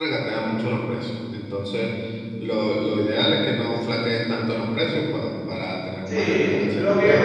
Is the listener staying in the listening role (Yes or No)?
No